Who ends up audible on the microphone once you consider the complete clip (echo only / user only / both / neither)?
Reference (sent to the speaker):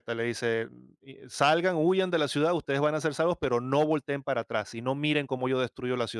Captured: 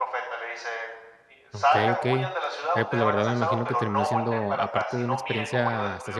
both